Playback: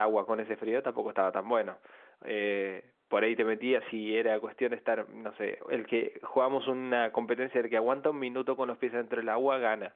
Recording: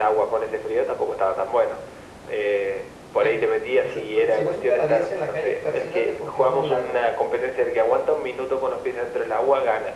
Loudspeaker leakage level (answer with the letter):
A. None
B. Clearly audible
B